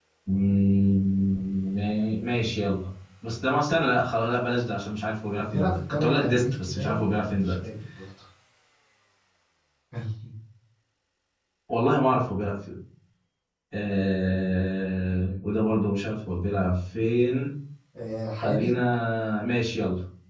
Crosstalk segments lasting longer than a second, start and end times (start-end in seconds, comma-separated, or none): 5.4-7.6